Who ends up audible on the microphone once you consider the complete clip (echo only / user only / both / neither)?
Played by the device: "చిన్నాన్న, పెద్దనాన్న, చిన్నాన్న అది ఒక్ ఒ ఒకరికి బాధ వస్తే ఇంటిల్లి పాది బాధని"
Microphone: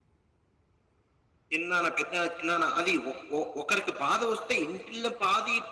echo only